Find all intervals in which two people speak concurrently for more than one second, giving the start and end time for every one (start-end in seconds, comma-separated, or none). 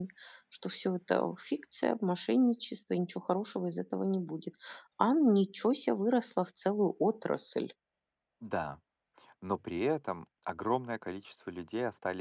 none